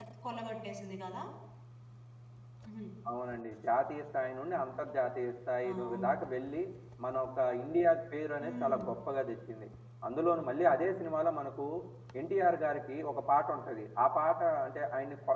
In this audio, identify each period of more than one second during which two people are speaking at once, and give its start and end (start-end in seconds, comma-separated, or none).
none